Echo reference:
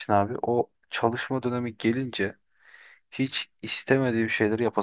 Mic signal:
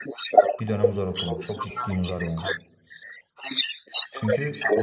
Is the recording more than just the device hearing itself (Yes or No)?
Yes